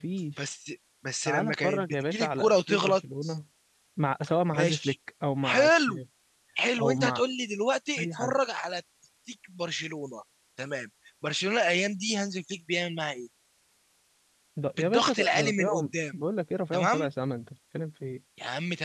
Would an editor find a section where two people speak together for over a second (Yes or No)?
Yes